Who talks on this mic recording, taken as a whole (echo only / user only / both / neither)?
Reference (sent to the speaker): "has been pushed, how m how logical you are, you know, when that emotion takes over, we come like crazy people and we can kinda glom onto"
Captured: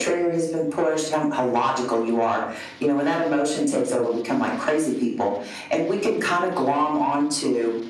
echo only